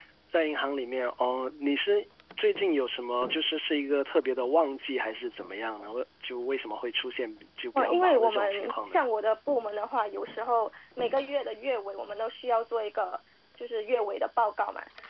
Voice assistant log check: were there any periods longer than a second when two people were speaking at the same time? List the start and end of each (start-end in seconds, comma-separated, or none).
7.8-8.9